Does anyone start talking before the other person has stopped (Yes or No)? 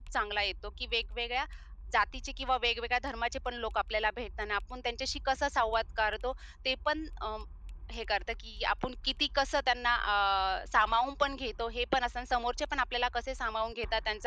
No